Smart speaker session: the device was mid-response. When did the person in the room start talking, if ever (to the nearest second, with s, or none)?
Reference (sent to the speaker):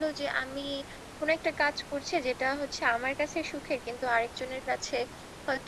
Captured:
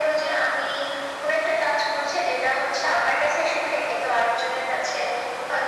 none